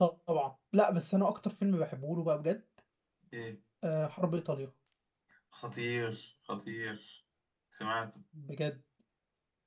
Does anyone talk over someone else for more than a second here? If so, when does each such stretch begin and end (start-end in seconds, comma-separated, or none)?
none